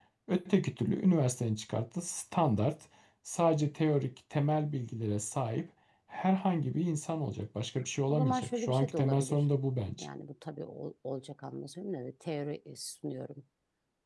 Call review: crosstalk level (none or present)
present